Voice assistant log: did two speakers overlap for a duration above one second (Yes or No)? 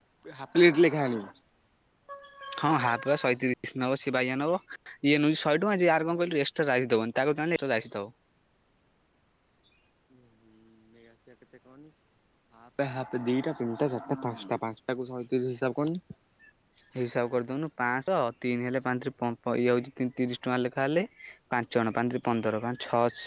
No